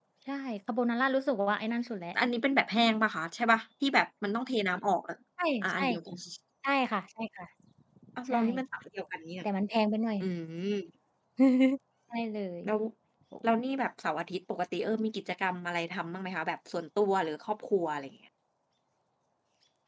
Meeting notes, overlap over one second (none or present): none